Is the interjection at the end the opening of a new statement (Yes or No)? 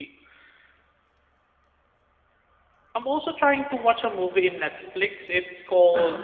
No